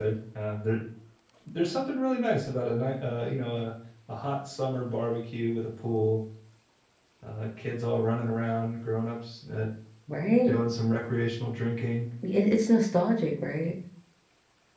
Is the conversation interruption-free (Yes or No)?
Yes